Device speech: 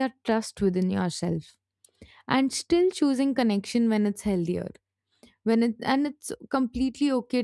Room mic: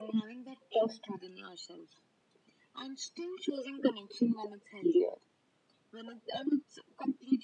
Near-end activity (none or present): none